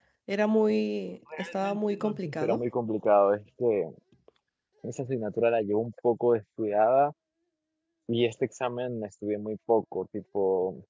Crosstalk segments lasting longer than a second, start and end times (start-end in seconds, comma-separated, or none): 1.4-2.6